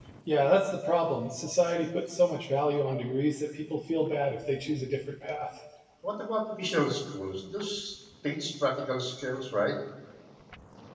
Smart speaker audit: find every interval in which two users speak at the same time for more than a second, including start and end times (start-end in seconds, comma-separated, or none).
none